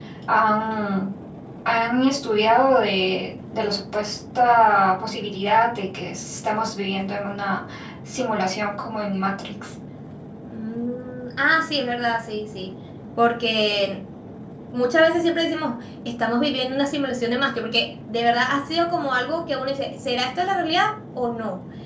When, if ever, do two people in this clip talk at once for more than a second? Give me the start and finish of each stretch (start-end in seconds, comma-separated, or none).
none